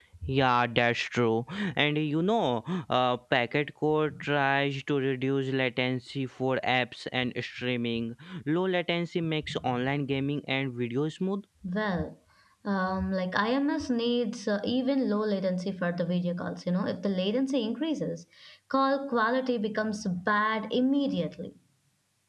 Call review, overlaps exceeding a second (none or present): none